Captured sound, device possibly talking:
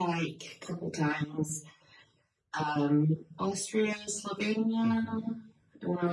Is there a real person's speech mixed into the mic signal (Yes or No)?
Yes